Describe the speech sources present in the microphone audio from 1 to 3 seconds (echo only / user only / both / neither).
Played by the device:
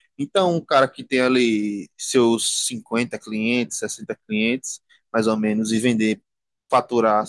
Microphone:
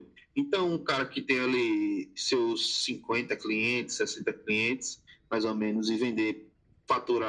echo only